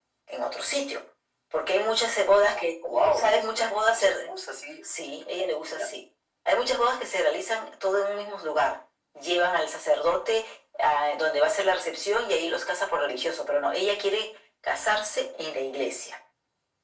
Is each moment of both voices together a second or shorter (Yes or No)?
No